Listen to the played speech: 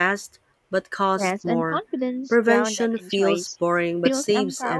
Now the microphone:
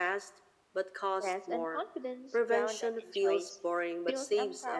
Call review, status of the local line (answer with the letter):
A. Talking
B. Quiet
B